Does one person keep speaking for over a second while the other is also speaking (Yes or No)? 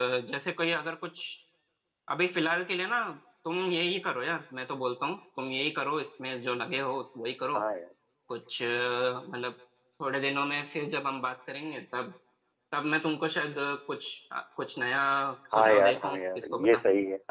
Yes